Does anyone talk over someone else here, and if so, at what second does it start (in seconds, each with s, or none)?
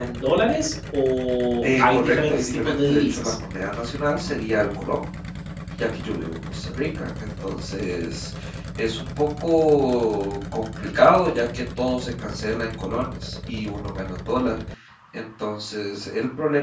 1.6 s